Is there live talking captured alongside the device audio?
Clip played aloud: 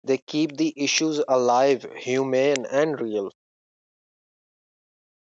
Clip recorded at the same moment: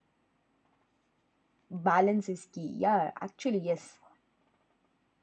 Yes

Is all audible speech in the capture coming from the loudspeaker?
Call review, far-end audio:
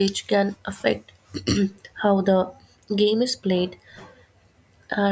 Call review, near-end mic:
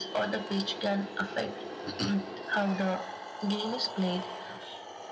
Yes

